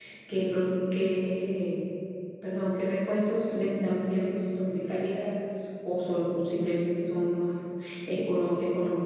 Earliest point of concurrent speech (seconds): none

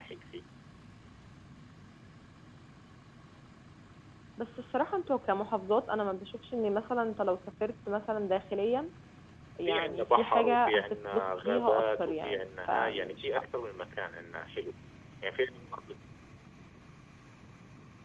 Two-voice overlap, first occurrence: 10 s

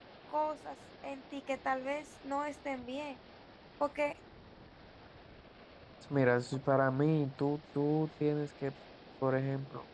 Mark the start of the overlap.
none

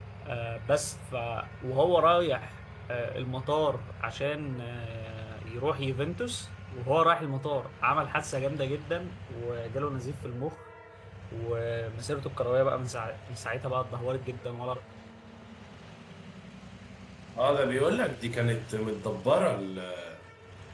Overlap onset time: none

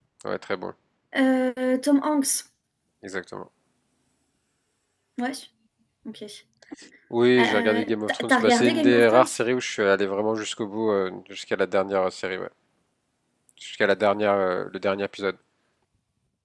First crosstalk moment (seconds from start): 7 s

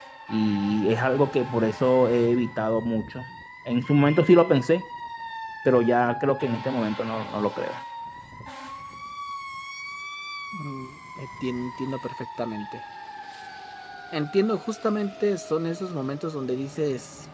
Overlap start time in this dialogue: none

